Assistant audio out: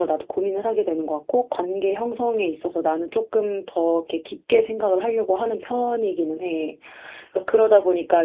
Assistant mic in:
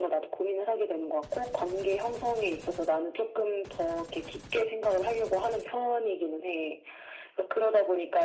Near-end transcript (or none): none